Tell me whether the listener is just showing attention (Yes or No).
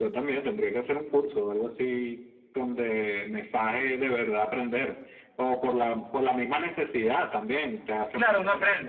No